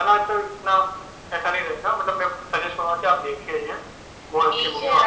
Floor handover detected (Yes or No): Yes